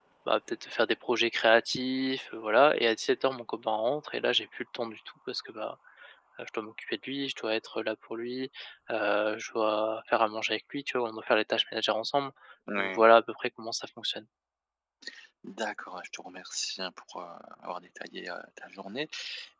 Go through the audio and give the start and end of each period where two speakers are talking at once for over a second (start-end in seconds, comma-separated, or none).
none